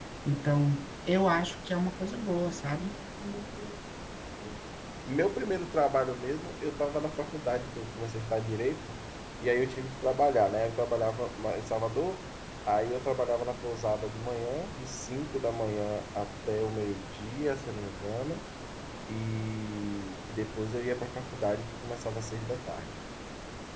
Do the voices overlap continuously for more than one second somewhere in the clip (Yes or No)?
No